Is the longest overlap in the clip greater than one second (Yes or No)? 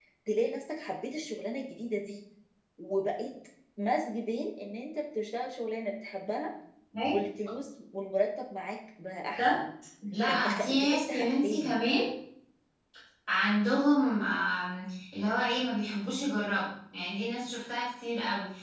Yes